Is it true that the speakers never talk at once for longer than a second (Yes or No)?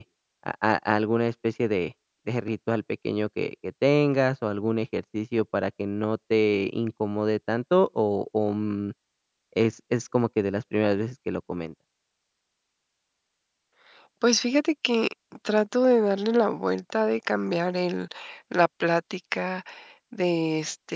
Yes